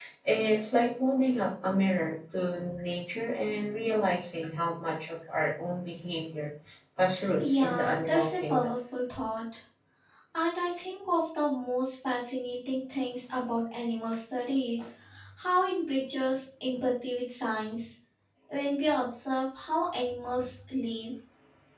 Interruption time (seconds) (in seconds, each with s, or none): 7.4 s